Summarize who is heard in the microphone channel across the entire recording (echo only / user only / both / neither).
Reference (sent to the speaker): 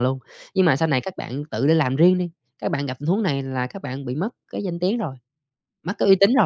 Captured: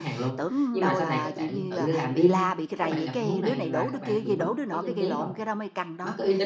both